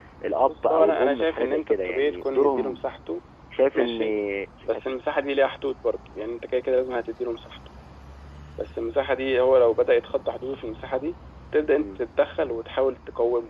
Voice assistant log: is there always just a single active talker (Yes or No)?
No